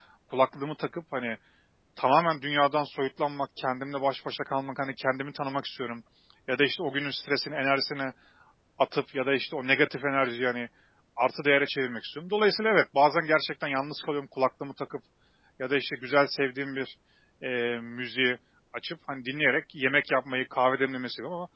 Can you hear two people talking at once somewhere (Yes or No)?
No